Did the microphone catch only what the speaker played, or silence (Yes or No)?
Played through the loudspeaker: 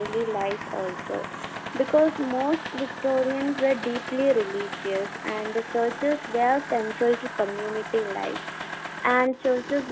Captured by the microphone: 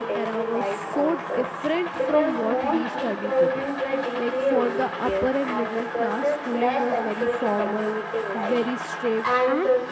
No